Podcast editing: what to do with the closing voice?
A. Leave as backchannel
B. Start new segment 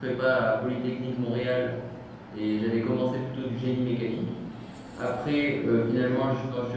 A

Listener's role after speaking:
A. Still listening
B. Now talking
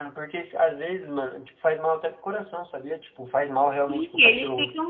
B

